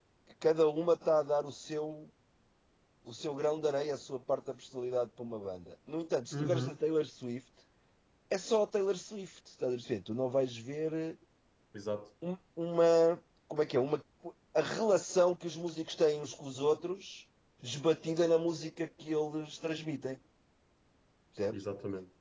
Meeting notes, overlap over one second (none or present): none